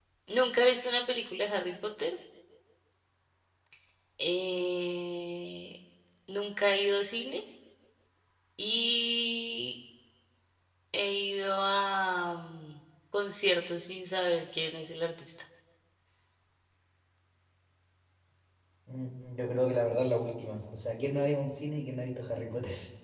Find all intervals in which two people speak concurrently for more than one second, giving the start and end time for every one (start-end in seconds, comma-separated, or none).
none